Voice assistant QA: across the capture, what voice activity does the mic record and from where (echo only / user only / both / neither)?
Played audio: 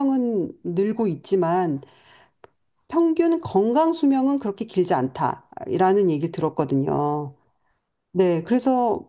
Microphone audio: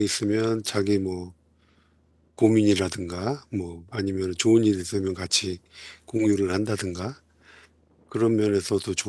user only